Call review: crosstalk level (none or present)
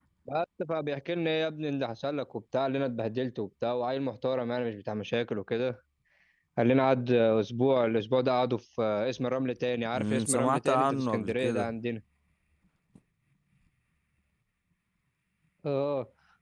present